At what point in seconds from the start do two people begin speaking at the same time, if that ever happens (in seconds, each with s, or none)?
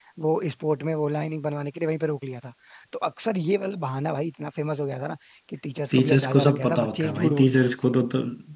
5.9 s